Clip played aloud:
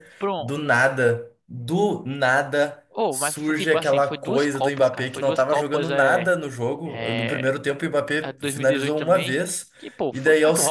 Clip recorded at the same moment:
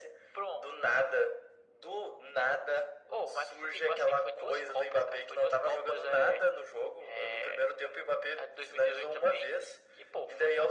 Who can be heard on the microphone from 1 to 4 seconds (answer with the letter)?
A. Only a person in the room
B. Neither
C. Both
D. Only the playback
D